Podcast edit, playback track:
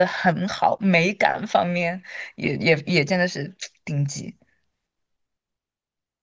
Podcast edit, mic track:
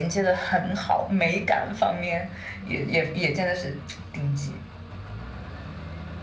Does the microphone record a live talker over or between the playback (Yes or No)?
No